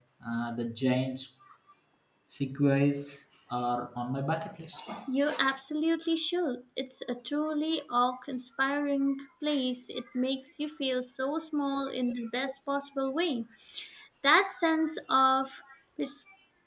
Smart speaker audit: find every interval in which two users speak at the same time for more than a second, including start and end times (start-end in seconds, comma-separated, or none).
none